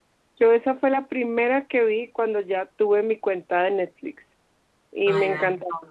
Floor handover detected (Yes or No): No